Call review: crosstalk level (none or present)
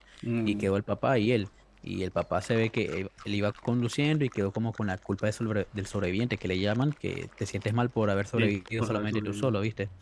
present